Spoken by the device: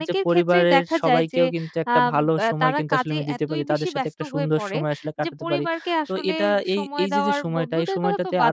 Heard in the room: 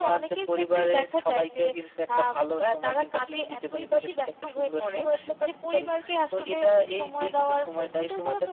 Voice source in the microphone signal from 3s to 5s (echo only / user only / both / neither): echo only